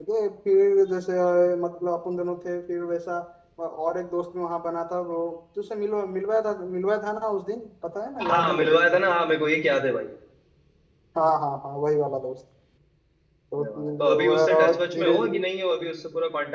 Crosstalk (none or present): present